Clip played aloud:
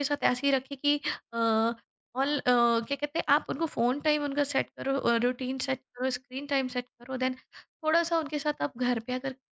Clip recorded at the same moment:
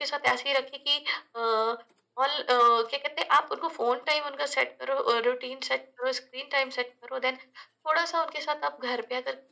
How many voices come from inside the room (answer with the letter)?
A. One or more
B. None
B